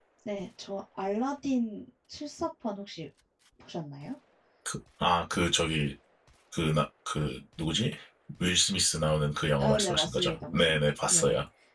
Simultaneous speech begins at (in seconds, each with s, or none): 9.6 s